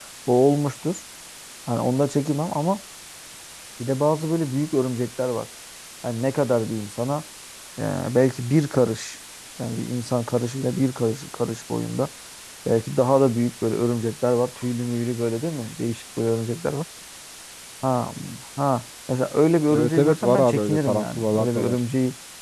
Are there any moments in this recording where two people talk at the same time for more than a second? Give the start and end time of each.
19.7-21.8

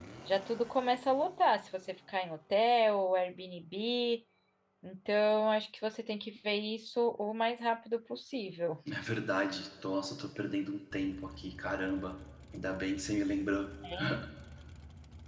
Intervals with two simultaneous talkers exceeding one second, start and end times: none

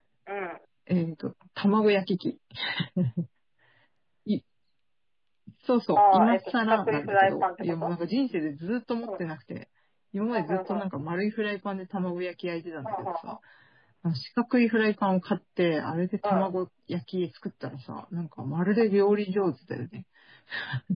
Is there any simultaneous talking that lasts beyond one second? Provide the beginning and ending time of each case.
6.0-7.9

